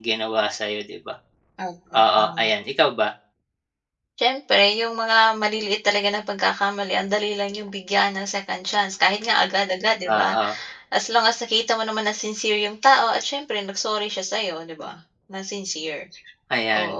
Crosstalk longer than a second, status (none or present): none